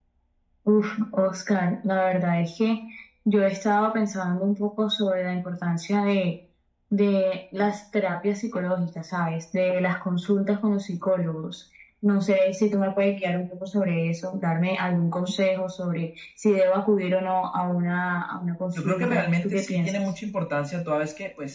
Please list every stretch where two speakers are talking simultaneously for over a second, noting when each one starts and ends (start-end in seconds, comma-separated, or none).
18.8-20.0